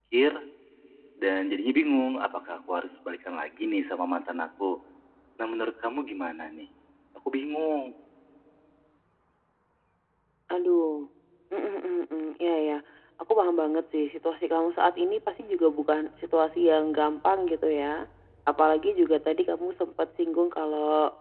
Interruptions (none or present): none